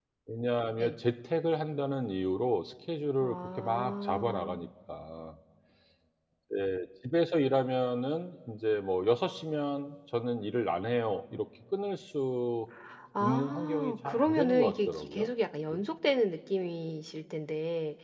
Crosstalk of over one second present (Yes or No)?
Yes